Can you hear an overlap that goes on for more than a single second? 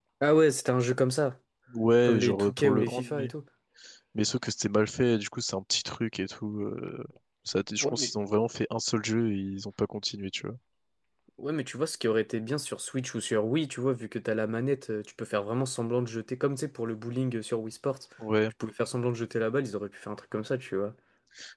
Yes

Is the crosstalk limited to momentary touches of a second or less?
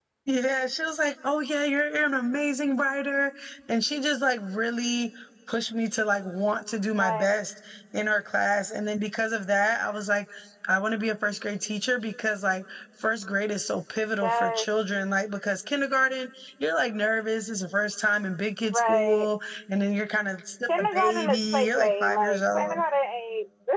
No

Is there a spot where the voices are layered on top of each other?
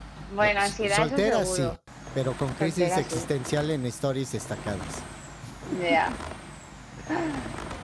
Yes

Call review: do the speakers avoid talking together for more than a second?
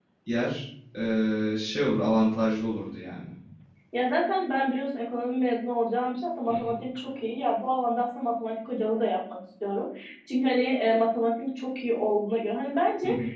Yes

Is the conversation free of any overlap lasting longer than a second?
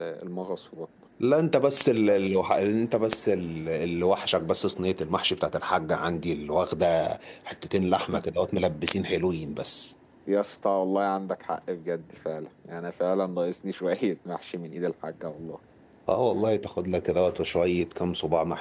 Yes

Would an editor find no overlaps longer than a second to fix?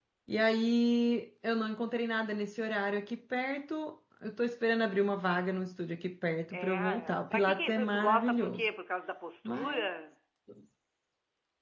No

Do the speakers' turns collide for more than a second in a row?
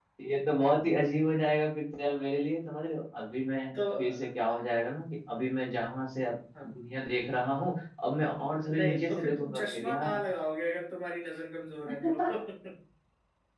Yes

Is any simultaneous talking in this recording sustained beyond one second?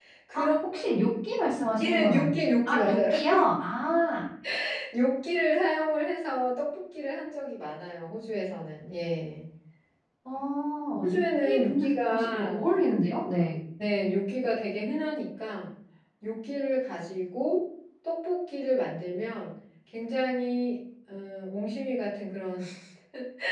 Yes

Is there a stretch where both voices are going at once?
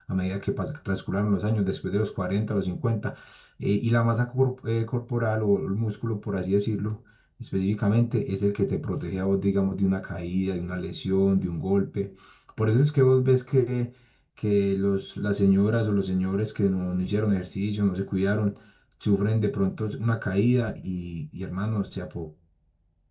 No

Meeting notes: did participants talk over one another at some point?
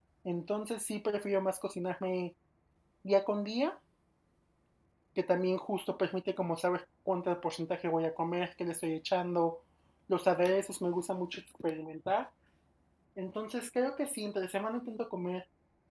No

